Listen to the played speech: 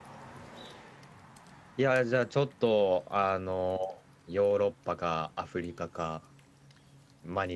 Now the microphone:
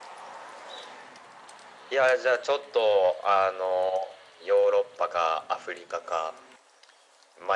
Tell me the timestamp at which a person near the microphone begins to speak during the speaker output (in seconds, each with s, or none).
none